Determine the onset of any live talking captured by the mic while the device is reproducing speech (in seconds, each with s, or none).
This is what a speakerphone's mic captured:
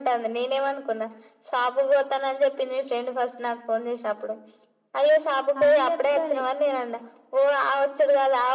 5.6 s